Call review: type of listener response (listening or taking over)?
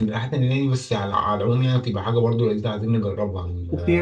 taking over